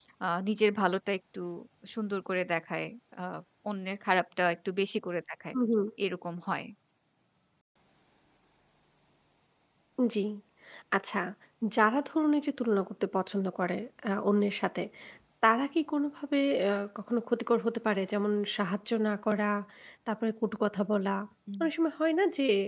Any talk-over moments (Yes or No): No